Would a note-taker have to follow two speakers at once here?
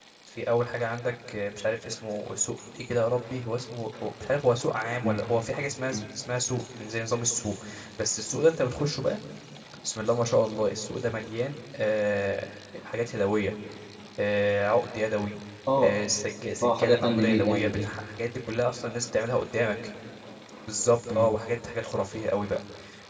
Yes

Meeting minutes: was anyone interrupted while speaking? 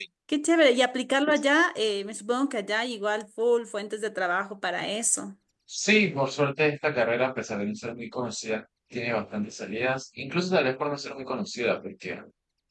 No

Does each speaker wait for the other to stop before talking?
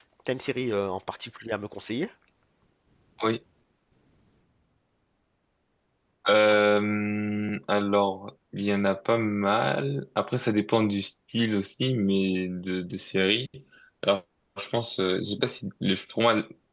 Yes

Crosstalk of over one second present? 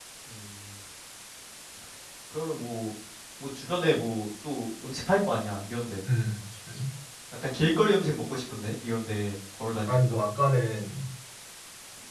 No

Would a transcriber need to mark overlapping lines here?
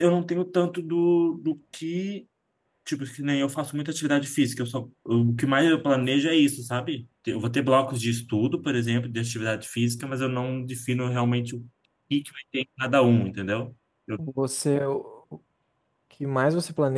No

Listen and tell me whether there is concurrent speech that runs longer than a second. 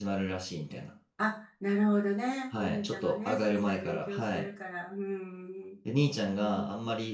Yes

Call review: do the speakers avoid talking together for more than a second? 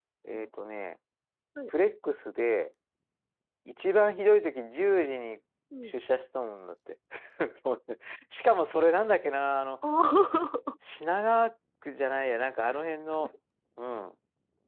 Yes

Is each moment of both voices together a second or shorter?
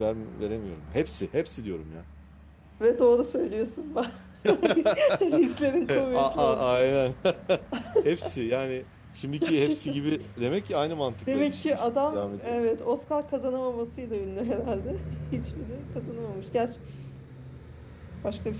No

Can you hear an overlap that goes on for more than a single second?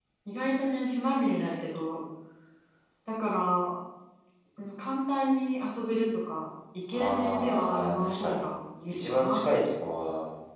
Yes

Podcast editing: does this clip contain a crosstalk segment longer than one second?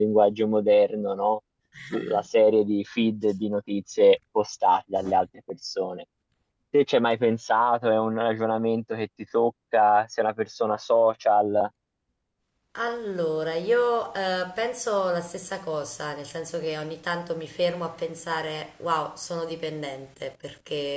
No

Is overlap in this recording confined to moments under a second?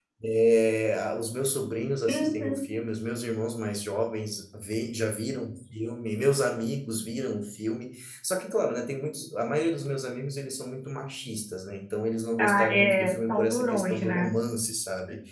No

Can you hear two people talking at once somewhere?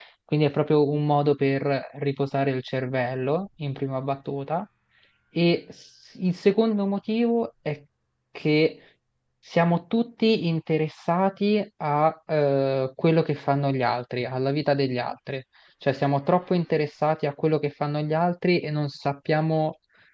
No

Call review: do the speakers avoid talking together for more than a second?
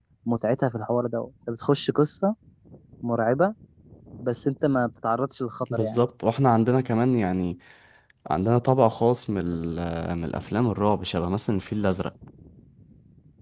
Yes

